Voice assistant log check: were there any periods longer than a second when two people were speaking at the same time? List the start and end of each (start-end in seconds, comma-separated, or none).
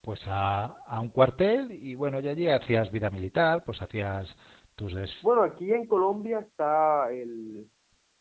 none